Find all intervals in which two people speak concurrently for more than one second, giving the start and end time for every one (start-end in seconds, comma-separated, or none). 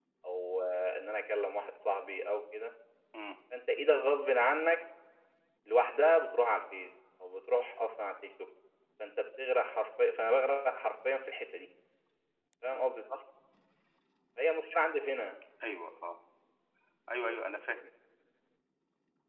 none